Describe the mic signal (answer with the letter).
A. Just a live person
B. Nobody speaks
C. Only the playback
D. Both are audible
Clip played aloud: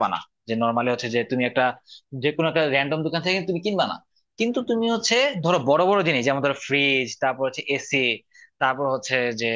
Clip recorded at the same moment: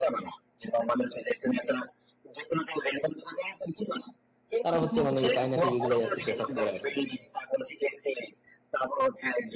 D